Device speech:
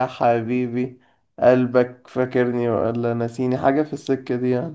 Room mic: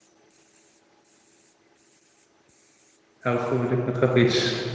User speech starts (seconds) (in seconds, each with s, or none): 3.3 s